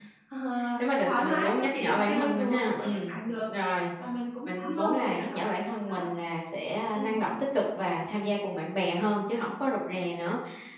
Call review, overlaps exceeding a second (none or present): present